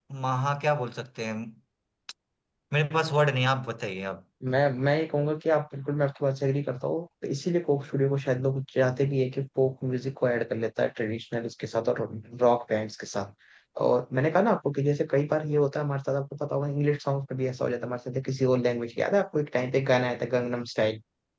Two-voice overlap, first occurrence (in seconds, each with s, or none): none